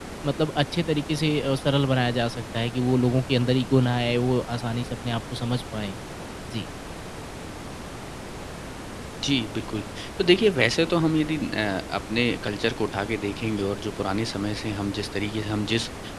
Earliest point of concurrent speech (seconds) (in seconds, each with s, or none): none